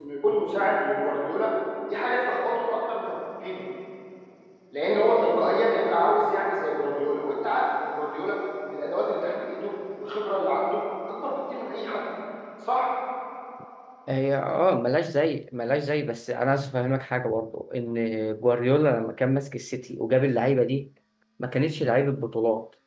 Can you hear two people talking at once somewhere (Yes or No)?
No